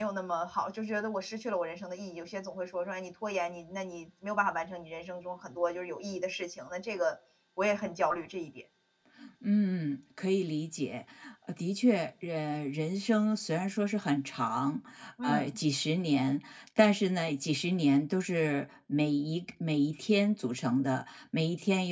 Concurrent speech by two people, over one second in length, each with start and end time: none

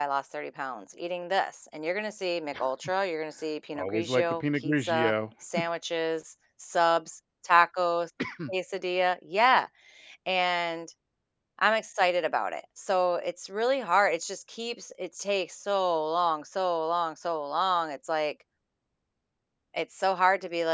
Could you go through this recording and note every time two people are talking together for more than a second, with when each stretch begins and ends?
3.8-5.1

